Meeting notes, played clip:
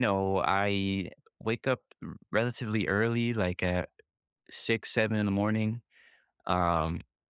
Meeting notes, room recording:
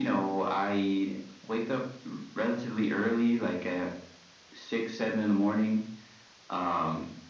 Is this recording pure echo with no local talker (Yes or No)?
Yes